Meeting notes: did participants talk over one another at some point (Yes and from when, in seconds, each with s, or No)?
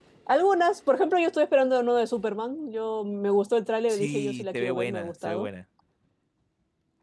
Yes, from 3.9 s